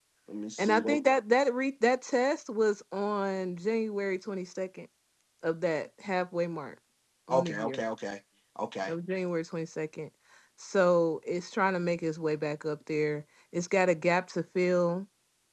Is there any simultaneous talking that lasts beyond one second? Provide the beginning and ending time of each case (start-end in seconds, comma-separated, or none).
none